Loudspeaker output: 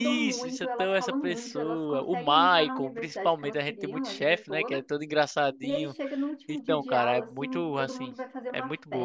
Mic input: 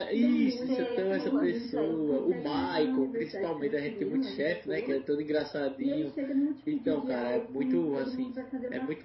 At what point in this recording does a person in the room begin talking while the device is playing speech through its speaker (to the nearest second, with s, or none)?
1 s